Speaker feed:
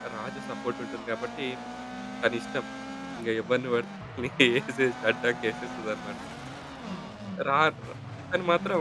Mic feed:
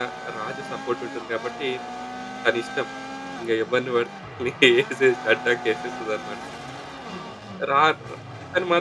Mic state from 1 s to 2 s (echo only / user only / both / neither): echo only